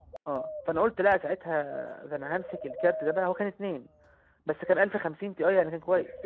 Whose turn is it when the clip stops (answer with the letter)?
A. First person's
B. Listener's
B